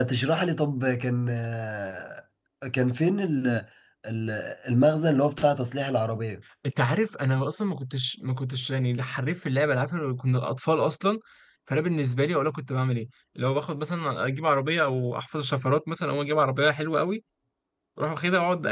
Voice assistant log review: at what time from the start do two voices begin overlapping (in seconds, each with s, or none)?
none